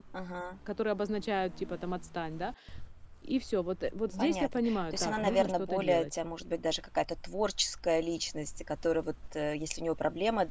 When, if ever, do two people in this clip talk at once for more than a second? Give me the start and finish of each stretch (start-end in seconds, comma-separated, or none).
4.2-6.0